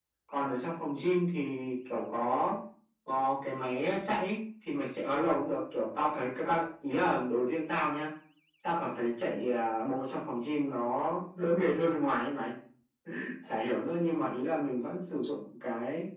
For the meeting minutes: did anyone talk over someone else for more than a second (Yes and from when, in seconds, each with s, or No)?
No